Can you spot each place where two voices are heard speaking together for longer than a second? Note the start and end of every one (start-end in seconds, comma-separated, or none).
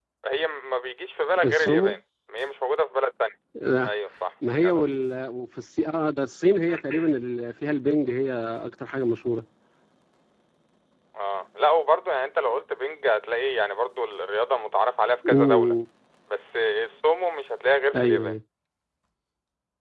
none